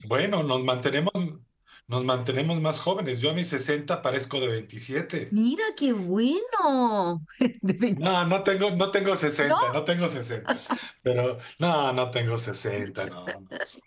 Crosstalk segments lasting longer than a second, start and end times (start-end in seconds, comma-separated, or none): none